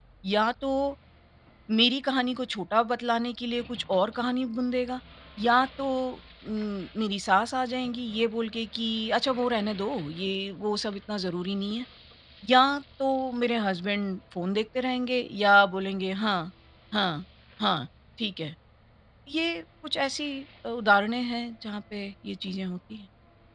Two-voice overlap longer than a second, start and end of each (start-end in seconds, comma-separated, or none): none